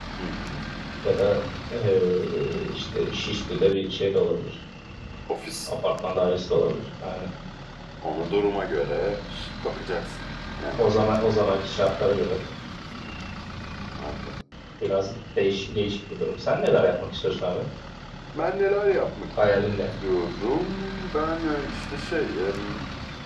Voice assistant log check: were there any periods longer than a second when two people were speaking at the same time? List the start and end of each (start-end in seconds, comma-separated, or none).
none